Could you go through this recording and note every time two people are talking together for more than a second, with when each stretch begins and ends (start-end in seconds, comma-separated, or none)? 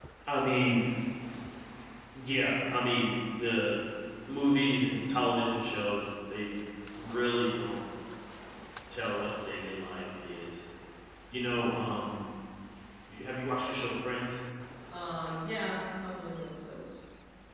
none